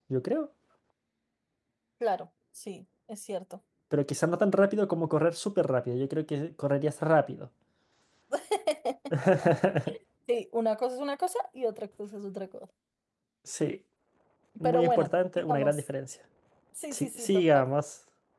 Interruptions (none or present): present